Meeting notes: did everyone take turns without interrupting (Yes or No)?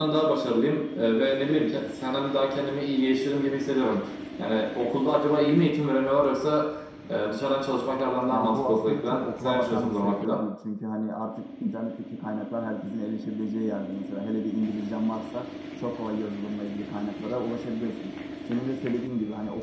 No